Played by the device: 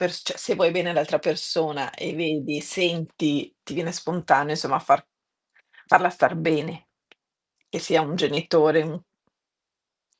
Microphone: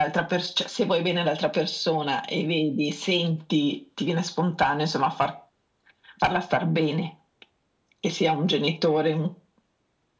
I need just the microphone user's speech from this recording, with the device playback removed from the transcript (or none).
none